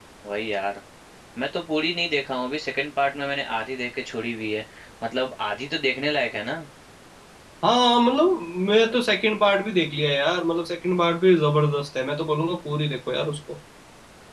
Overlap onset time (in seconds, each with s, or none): none